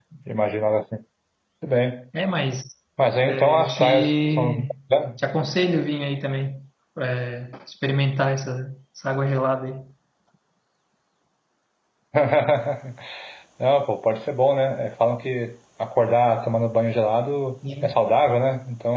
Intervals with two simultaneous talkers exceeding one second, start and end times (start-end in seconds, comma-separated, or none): 3.2-4.7